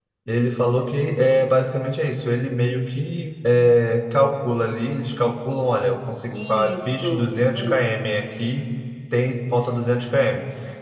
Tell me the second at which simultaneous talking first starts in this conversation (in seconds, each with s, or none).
6.3 s